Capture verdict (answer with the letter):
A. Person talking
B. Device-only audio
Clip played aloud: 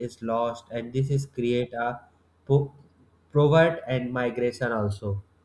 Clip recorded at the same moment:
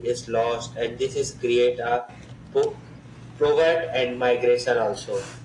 B